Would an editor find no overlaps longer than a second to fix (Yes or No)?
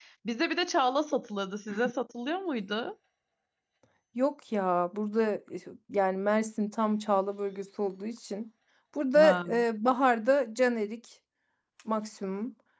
Yes